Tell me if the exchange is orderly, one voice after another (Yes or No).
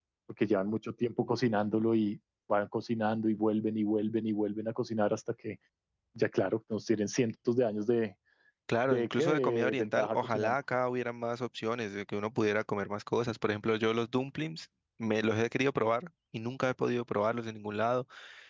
No